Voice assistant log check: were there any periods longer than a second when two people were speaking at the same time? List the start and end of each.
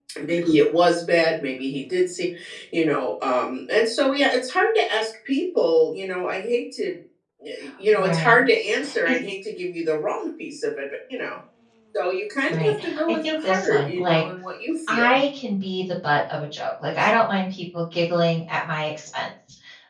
12.5-14.2

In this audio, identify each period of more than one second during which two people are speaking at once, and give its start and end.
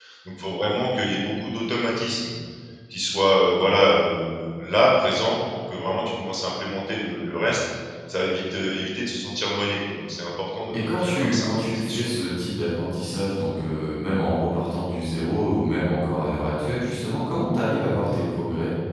10.7-12.1

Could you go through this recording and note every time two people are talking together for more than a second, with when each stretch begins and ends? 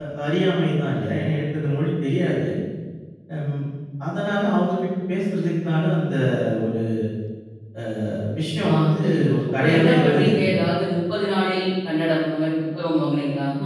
8.7-10.4

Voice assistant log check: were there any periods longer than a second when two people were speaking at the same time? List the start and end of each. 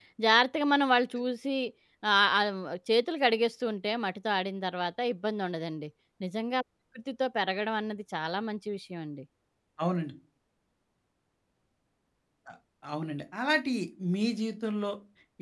none

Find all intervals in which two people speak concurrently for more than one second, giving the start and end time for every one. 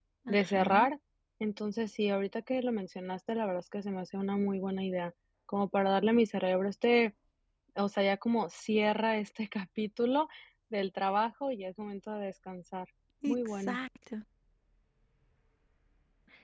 none

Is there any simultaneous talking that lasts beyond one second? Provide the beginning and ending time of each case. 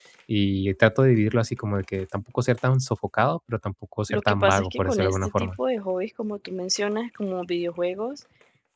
4.1-5.5

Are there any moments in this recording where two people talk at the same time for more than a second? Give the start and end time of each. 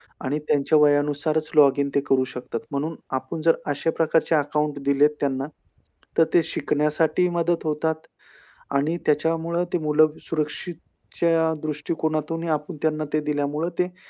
none

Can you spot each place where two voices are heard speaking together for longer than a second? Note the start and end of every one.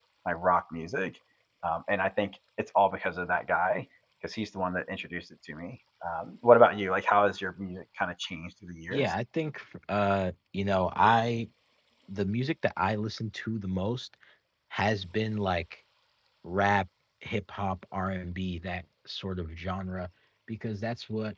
none

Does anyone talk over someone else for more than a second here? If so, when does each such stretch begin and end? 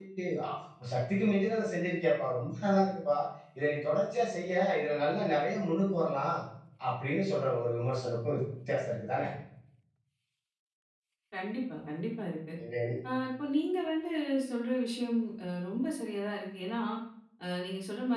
none

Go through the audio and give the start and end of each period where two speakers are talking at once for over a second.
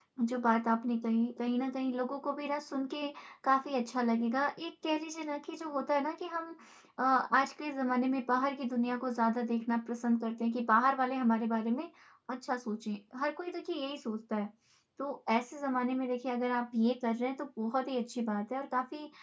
none

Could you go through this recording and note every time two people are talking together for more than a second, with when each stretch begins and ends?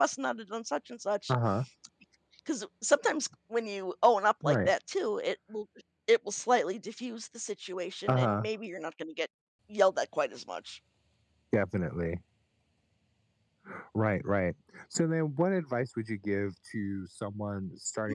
none

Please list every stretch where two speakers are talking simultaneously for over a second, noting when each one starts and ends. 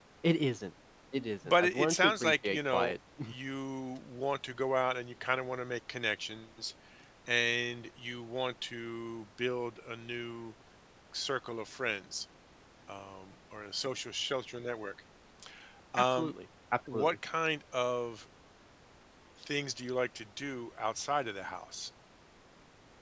1.4-3.0

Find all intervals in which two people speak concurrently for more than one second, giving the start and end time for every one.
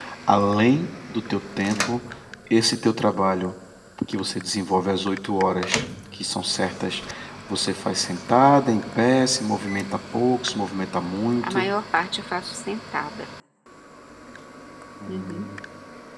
none

